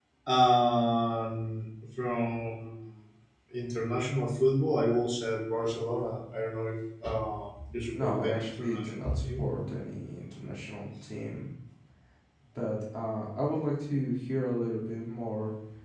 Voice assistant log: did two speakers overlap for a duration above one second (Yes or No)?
Yes